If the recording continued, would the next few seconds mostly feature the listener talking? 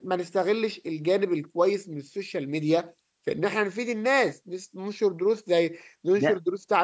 No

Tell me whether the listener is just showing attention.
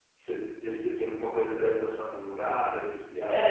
No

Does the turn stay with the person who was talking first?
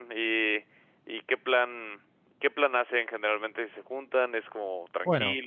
No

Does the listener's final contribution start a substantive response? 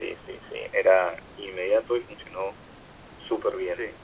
Yes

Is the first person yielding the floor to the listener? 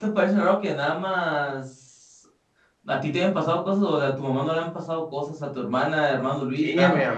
Yes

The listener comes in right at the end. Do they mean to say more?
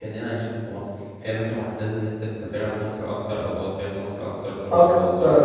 Yes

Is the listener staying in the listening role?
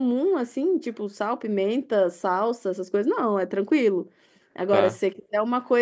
Yes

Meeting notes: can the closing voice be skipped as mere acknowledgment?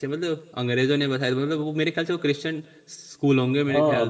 No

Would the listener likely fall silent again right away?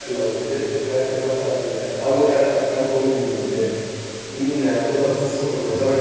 Yes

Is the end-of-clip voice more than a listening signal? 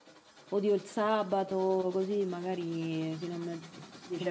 Yes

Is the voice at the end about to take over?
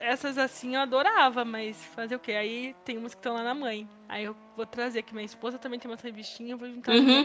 Yes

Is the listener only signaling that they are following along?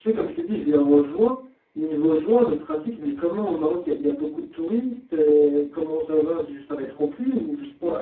No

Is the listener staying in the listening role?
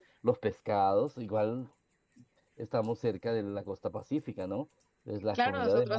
No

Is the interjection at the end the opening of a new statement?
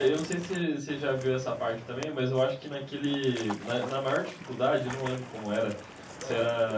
No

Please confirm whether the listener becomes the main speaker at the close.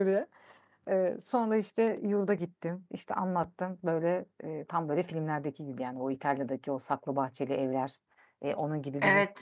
Yes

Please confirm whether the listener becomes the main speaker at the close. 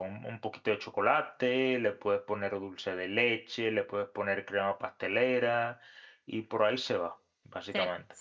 Yes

